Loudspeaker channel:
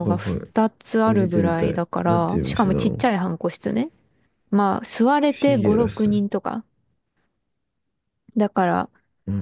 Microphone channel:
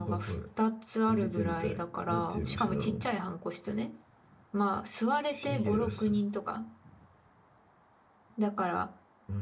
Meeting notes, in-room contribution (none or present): present